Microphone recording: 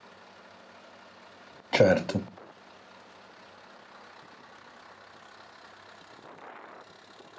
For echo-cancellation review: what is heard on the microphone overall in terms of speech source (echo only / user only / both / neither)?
user only